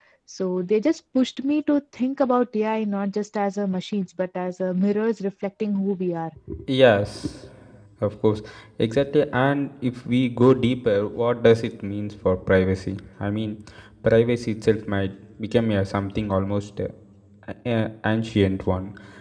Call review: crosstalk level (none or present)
none